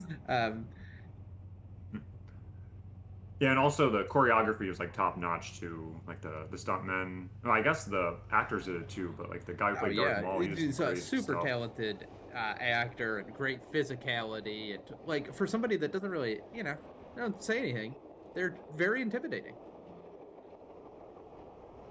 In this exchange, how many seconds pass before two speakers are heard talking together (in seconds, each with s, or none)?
9.7 s